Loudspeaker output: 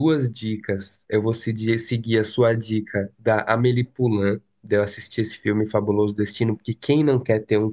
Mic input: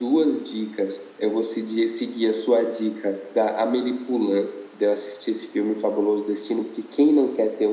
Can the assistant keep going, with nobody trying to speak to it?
Yes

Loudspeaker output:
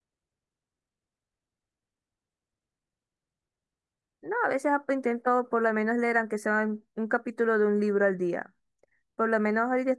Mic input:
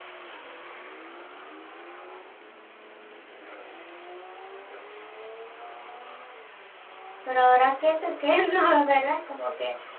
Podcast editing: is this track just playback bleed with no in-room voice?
No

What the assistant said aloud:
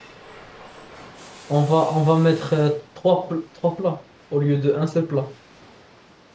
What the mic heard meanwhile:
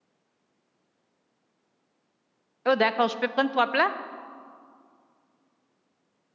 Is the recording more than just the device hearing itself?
Yes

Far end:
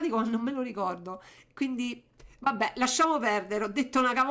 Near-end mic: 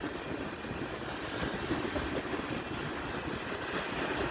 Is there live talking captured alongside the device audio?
No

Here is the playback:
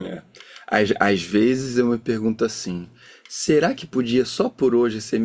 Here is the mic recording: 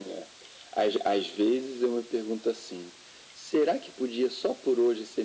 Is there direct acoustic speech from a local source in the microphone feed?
No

